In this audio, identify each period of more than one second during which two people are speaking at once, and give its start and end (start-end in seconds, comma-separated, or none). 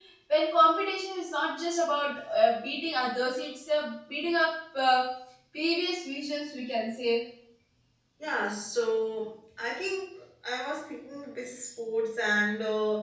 none